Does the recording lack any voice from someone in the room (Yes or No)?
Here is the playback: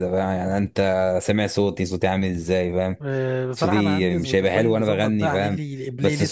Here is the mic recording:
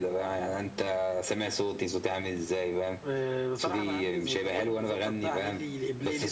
Yes